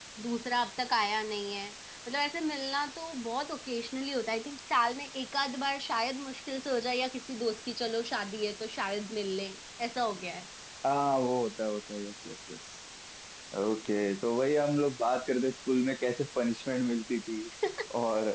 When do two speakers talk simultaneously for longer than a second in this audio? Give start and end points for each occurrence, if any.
none

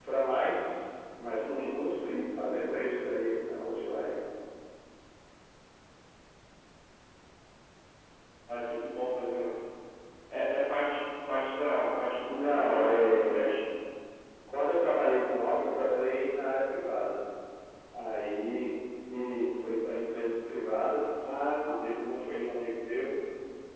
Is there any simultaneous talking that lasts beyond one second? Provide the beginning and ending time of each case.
12.2-13.5

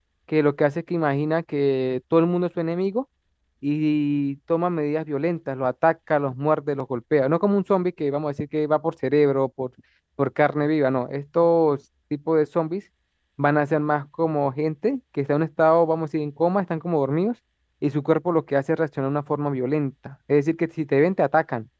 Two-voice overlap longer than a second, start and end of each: none

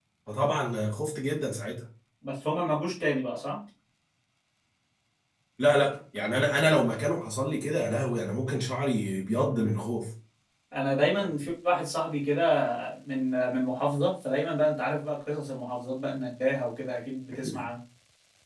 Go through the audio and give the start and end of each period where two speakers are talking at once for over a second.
none

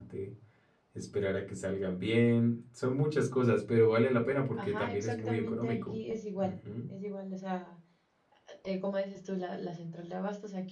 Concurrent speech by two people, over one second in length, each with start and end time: 4.6-6.0

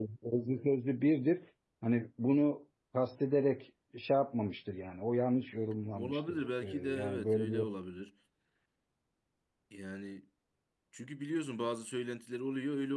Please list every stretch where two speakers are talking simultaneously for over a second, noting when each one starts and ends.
5.9-7.7

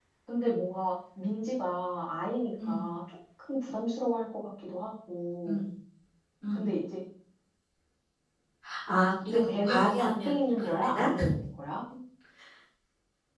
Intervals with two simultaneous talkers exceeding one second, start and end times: 9.3-11.1

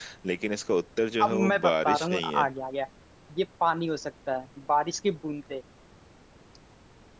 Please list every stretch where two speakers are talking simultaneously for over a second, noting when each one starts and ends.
1.2-2.5

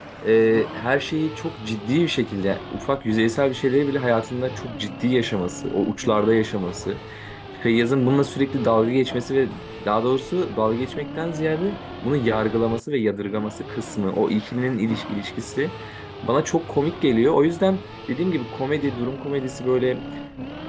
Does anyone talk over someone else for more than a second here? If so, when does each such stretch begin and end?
none

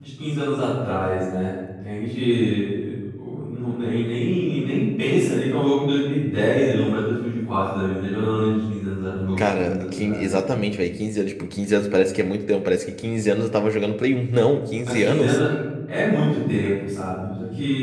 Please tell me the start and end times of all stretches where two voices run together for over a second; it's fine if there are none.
9.4-10.6

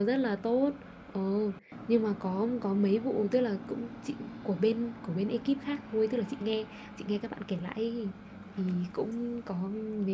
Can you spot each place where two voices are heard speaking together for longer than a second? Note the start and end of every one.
none

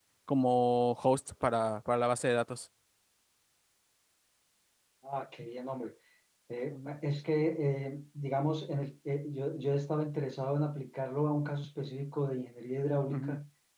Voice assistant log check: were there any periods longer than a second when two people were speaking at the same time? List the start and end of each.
none

